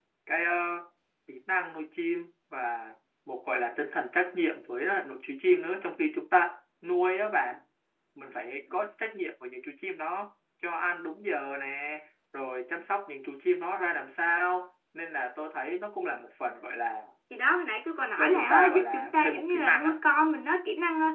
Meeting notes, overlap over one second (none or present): present